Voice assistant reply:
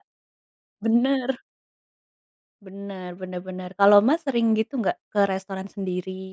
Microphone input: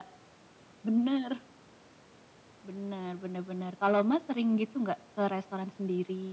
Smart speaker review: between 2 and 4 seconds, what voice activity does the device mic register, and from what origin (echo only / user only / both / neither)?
echo only